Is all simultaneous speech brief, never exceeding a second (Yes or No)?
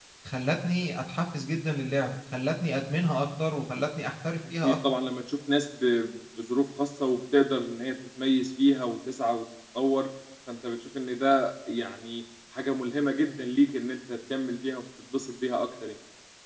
Yes